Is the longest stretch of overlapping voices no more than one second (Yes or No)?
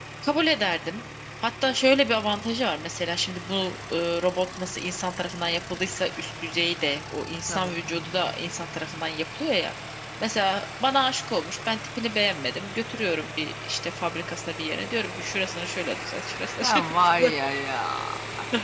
Yes